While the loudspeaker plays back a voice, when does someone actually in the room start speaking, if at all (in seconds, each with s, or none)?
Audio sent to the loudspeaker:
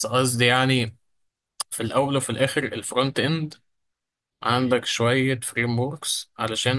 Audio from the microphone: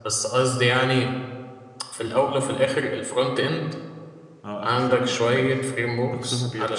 4.5 s